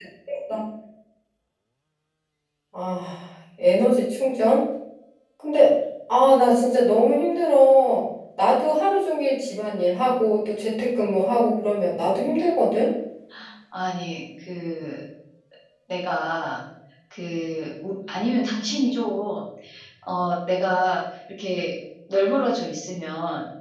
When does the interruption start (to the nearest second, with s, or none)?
none